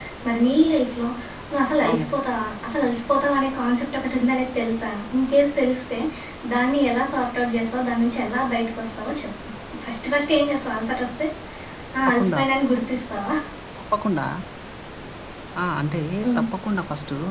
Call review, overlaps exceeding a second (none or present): none